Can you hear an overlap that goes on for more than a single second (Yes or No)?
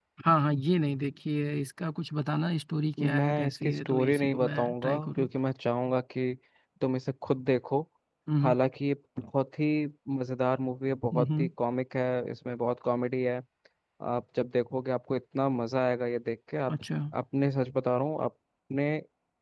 Yes